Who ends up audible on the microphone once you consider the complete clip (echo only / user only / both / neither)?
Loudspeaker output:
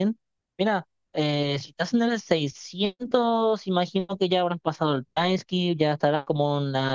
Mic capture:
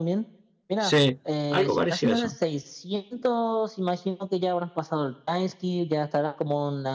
both